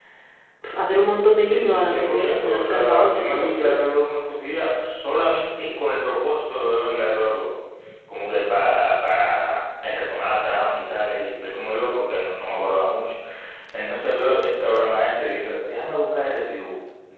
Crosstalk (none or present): present